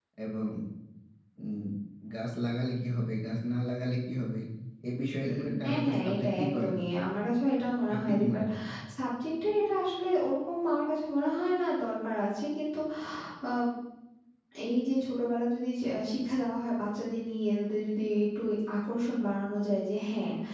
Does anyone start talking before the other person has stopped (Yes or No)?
Yes